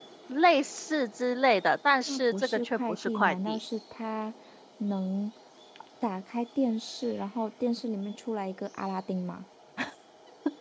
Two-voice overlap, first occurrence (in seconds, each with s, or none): 2.1 s